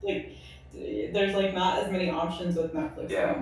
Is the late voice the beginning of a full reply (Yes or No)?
Yes